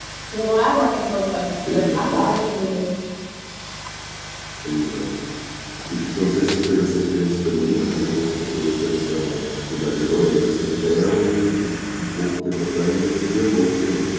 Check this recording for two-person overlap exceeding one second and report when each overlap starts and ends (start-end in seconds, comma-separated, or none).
none